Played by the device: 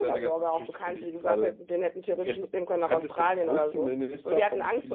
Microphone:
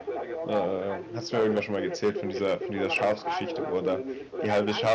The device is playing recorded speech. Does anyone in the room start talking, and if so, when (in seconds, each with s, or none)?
0.4 s